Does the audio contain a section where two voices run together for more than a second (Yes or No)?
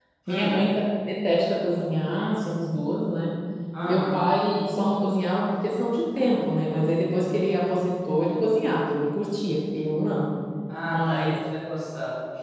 No